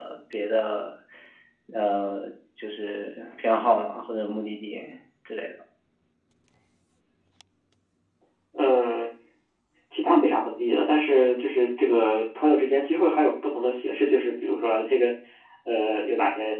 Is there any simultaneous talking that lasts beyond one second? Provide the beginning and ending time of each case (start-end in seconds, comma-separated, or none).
none